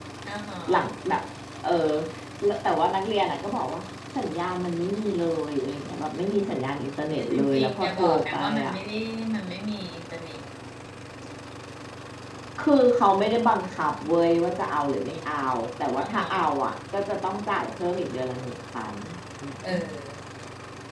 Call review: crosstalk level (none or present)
present